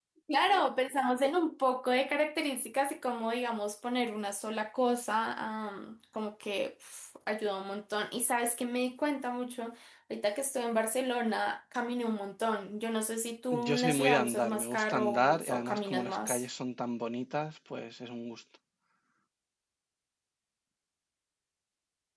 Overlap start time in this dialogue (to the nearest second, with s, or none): 14 s